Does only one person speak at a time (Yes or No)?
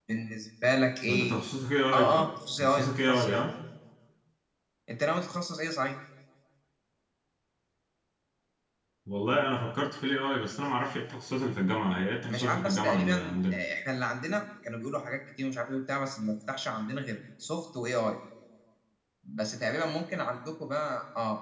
No